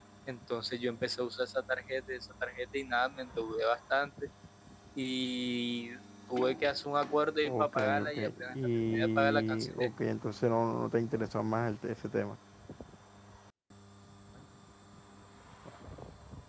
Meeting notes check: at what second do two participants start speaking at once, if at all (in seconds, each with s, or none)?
7.4 s